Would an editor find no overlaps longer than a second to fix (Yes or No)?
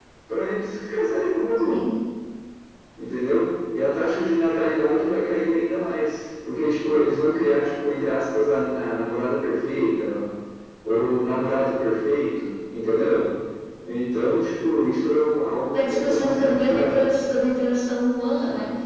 No